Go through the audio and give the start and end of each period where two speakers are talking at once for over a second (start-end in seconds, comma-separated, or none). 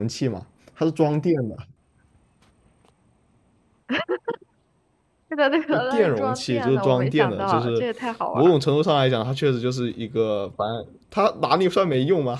5.7-7.8